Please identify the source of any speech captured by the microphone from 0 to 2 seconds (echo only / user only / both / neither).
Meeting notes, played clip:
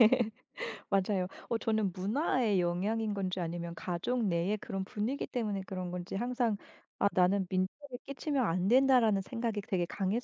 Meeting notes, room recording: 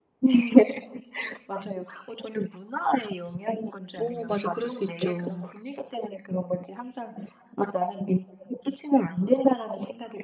echo only